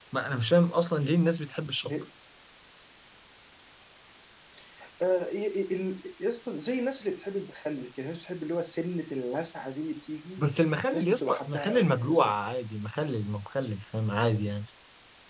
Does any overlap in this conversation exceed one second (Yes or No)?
Yes